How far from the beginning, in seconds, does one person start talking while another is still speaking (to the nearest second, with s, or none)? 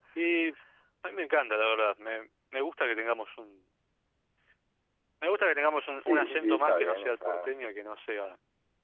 6 s